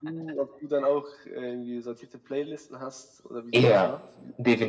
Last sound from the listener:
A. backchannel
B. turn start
B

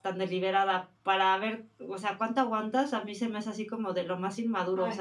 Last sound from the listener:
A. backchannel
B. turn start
B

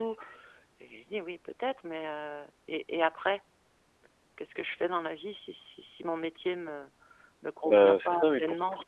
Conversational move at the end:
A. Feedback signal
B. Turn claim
B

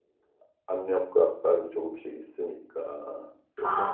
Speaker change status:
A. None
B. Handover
B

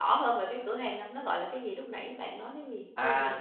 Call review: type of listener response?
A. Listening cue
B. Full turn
B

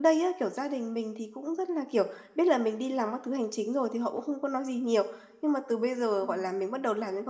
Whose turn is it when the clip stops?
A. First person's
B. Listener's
A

